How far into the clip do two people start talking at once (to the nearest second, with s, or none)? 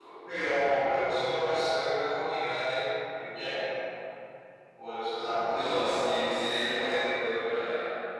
5 s